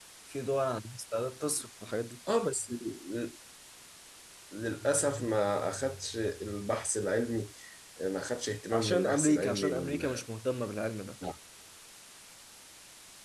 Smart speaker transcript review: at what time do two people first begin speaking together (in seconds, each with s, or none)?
8.7 s